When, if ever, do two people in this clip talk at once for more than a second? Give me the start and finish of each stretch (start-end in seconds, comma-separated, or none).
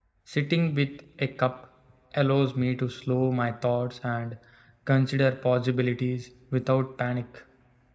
none